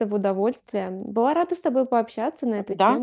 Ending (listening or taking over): taking over